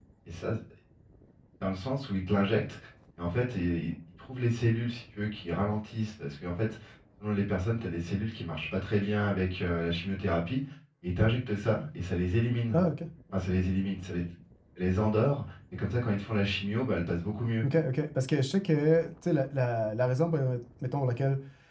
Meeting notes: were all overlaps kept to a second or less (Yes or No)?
Yes